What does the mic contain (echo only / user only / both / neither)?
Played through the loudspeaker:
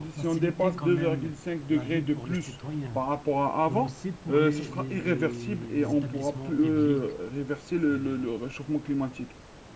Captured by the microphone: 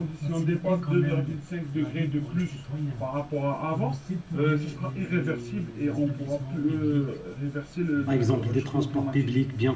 both